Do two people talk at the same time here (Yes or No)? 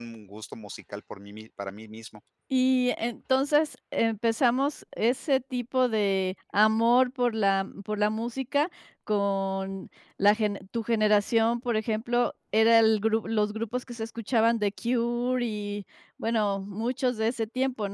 No